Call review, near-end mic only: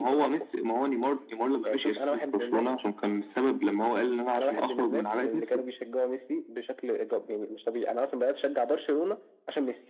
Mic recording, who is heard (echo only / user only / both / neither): echo only